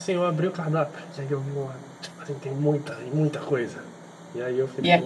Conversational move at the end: listening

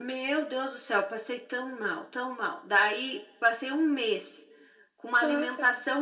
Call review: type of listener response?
listening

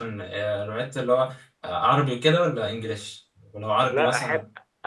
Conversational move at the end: taking over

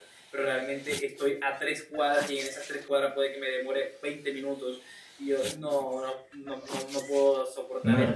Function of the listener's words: taking over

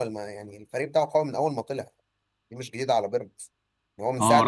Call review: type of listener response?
taking over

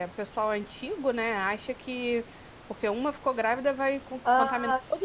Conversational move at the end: taking over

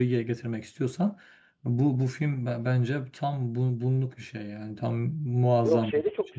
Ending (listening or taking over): taking over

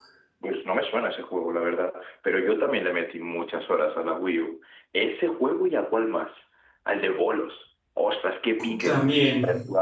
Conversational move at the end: listening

